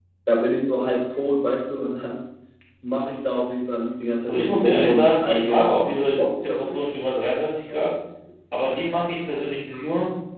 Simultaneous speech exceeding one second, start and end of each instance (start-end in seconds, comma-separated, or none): 4.3-6.8